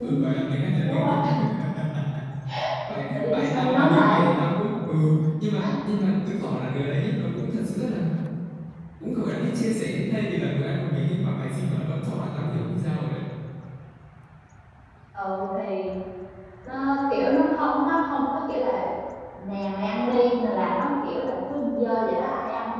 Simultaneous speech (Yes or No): Yes